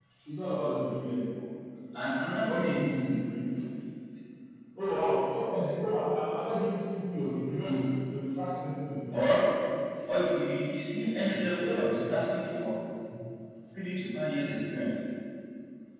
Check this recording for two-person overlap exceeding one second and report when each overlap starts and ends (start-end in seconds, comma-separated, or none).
11.0-12.2